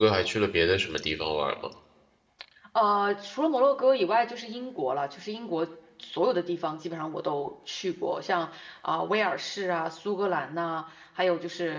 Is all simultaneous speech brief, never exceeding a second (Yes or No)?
Yes